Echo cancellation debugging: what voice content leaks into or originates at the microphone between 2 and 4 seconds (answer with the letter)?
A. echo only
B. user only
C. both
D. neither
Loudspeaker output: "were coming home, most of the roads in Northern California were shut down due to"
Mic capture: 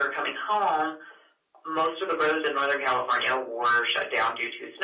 A